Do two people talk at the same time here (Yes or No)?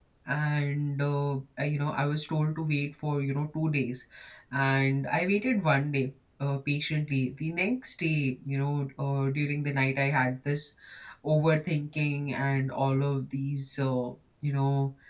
No